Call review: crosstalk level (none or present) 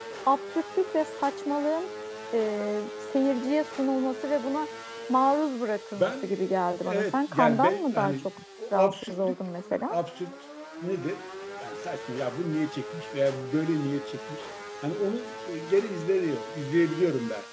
present